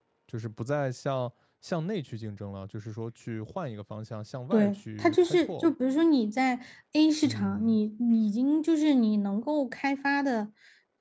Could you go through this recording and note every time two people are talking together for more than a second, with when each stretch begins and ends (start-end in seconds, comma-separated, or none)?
4.5-5.7